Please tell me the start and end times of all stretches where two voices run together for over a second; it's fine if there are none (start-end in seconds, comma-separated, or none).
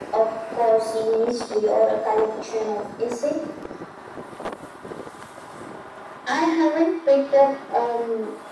none